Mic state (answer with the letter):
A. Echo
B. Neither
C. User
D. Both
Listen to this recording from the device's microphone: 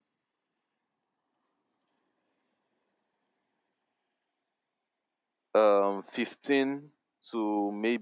C